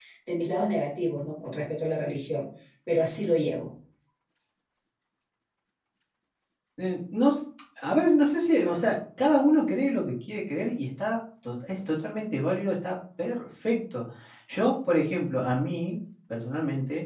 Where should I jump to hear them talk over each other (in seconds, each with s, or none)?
none